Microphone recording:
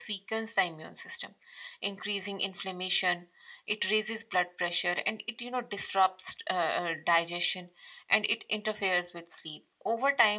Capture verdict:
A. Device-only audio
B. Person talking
A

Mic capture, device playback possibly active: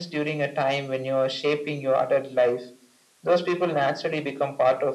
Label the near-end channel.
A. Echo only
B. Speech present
A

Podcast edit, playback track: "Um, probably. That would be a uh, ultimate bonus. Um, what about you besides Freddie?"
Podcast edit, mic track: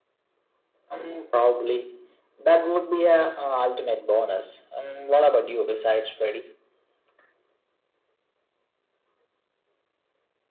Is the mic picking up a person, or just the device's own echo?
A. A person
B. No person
B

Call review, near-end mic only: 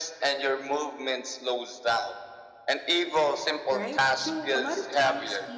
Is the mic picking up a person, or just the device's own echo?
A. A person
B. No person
A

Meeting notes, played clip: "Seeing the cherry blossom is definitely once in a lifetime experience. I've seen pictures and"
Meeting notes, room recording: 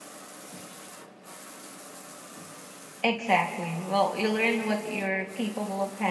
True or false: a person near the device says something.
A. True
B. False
A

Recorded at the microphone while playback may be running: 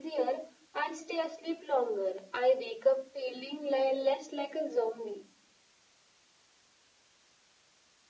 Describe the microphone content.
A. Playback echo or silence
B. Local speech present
A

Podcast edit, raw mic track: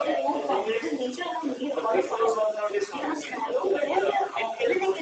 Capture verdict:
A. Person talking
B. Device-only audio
B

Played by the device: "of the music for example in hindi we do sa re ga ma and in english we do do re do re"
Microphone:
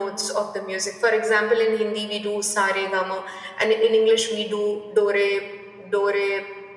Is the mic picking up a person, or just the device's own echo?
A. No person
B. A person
A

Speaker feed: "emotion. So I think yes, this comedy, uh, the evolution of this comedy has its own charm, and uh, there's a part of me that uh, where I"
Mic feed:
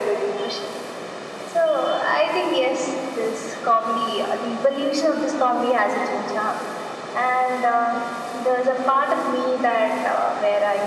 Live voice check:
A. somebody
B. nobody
B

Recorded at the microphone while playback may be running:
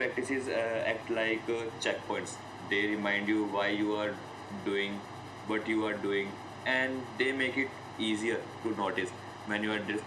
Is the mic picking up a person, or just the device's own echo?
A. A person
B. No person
B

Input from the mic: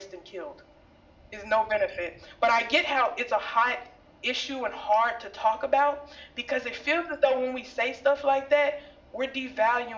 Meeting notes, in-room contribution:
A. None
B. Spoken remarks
A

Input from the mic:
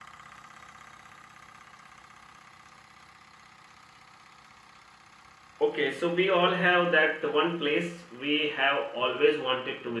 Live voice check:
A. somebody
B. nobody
A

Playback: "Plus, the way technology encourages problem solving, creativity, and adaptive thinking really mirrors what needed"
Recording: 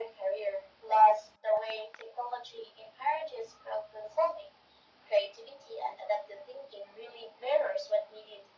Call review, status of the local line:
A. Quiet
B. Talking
A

